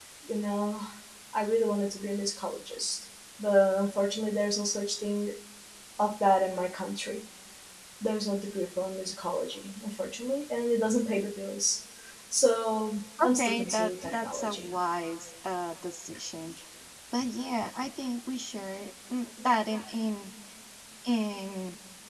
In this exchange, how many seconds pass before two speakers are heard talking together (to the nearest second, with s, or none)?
13 s